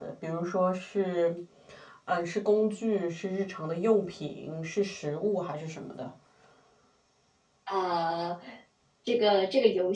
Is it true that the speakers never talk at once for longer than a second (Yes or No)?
Yes